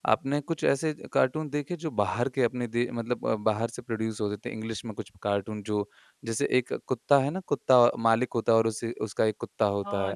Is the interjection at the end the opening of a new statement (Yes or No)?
Yes